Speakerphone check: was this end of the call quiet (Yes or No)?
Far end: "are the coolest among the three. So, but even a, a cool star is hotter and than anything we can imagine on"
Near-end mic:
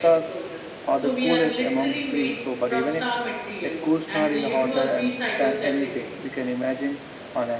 No